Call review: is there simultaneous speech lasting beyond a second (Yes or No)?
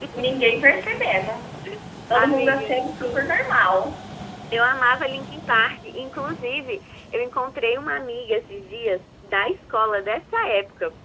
Yes